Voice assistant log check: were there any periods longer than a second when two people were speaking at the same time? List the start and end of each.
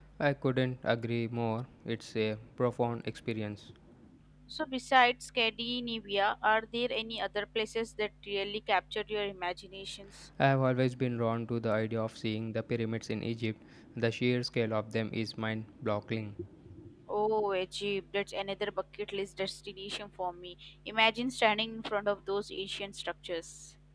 none

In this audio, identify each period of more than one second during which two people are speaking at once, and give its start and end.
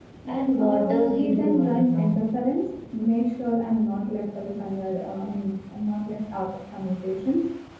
0.6-2.2

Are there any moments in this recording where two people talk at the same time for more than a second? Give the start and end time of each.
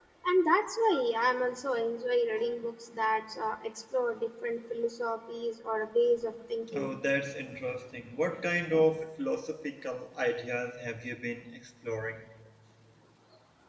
none

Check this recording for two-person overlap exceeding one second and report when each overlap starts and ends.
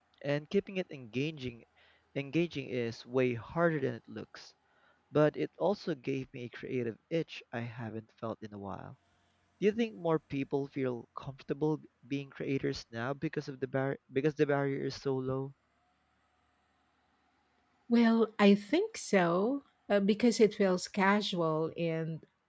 none

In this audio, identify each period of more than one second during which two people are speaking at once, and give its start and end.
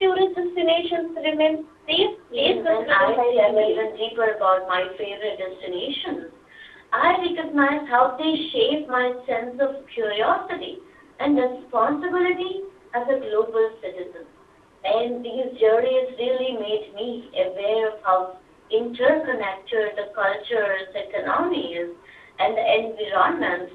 2.4-3.8

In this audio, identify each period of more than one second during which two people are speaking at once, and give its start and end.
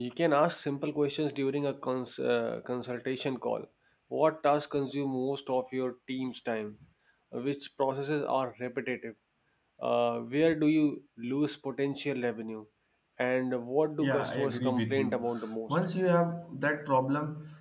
14.0-15.2

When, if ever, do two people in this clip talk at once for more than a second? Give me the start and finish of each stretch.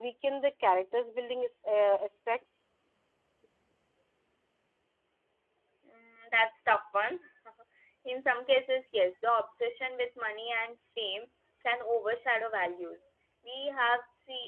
none

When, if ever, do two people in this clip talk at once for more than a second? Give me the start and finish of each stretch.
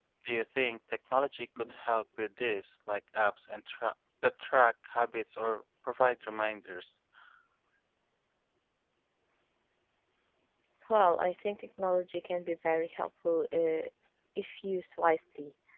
none

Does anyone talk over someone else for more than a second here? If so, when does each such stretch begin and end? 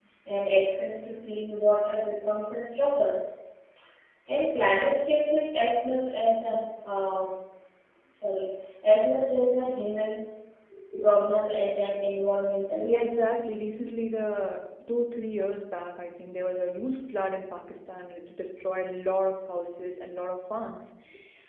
none

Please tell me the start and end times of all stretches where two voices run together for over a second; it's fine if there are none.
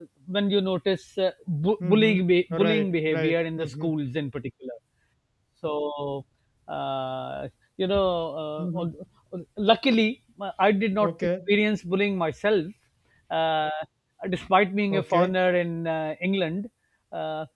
2.6-3.9

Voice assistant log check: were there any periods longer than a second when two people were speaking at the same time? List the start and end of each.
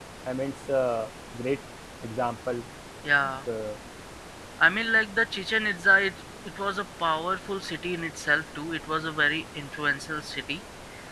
none

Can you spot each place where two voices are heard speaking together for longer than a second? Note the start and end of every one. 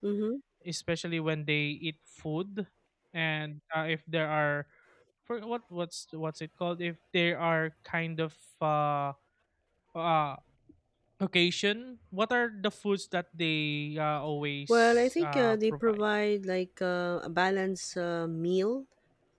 14.7-16.0

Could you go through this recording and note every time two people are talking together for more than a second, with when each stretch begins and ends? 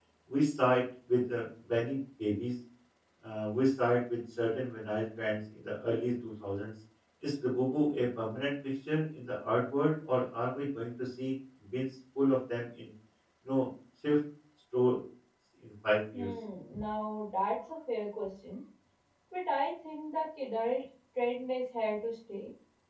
none

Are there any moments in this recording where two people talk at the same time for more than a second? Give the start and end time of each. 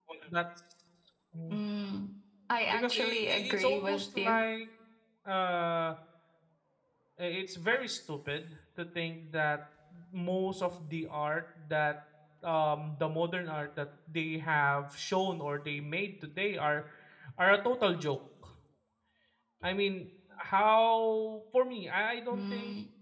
2.7-4.5

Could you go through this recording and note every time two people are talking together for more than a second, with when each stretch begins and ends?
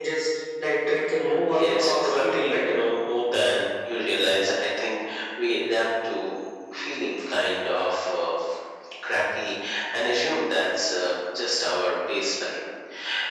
1.5-2.8

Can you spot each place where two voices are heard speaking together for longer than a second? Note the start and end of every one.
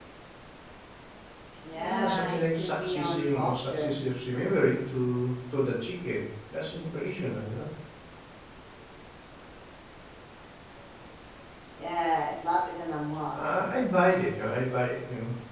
1.7-3.9

